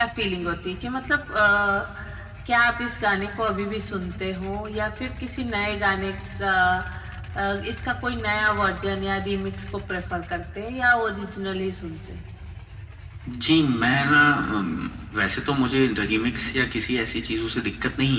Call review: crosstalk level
none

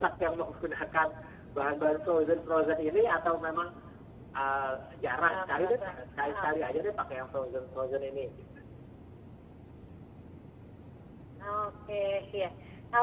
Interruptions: present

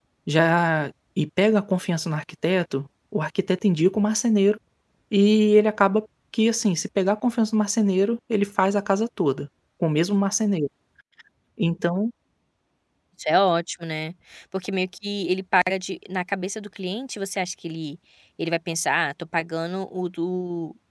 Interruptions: none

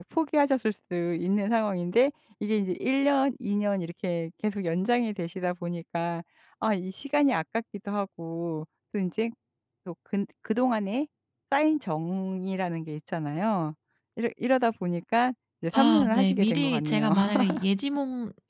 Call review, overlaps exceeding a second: present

